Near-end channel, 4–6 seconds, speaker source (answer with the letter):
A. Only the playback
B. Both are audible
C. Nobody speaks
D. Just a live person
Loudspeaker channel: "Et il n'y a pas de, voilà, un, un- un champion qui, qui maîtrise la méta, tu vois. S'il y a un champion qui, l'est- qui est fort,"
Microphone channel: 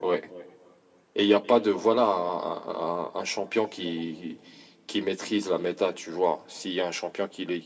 A